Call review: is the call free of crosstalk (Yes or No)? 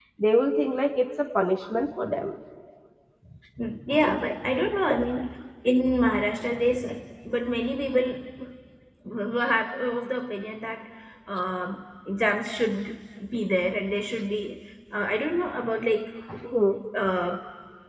Yes